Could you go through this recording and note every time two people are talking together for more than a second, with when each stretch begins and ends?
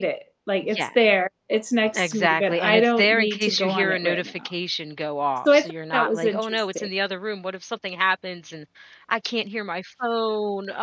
1.9-4.5, 5.5-6.9

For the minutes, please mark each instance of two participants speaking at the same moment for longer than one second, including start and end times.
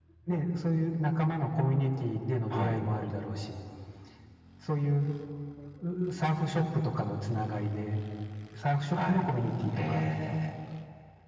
none

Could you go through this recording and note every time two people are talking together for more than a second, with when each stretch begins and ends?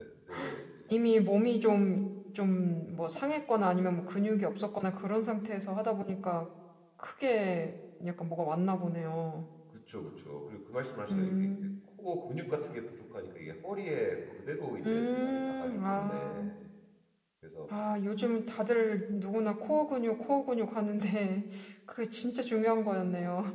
14.8-16.5

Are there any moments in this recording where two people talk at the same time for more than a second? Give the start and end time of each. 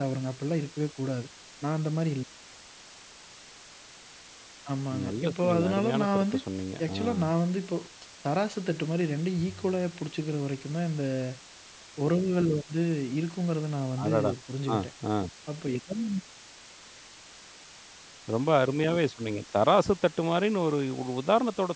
5.0-6.4

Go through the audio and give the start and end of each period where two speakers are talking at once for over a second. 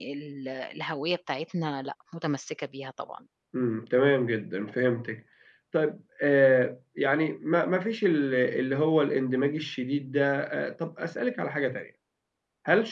none

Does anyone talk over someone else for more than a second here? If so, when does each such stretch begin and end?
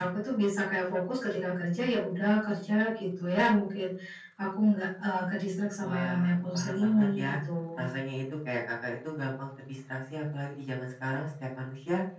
5.8-7.2

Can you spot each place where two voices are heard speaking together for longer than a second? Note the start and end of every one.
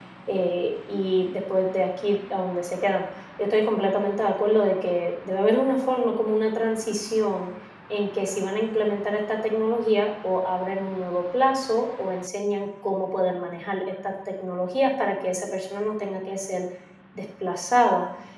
none

